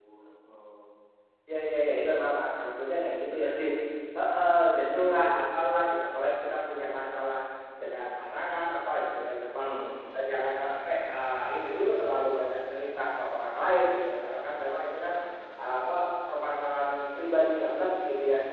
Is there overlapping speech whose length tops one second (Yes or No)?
No